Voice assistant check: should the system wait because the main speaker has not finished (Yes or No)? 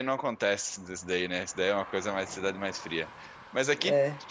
Yes